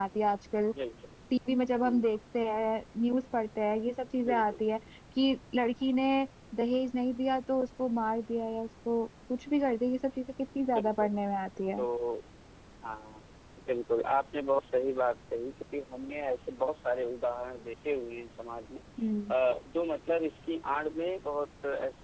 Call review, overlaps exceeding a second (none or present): none